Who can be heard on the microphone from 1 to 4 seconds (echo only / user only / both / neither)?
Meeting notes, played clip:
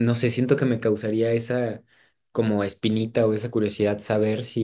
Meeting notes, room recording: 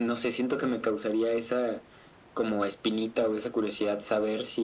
echo only